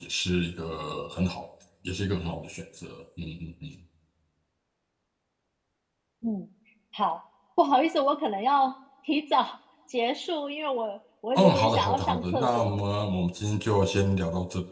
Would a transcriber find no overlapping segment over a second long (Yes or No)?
No